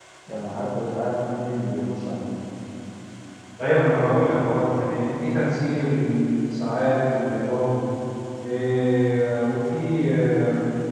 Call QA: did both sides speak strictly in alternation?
Yes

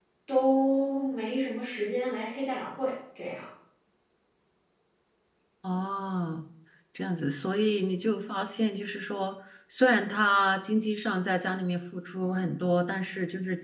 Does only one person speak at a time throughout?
Yes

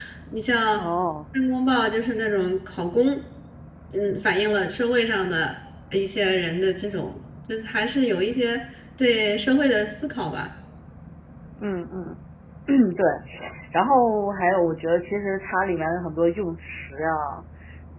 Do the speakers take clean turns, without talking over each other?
Yes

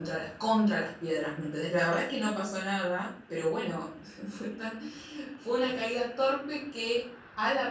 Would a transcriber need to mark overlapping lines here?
No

